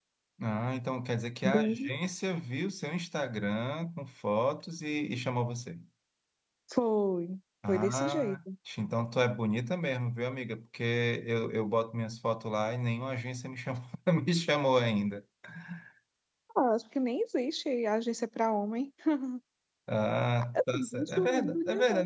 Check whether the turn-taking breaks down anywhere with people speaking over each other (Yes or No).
Yes